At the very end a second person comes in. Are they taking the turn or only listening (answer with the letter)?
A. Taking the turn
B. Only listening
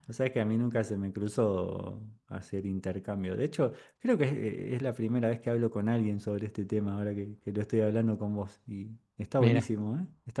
B